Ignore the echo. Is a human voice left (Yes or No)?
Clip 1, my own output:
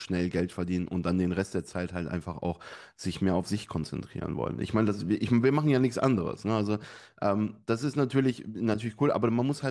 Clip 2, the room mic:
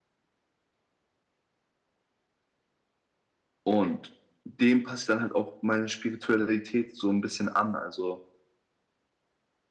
Yes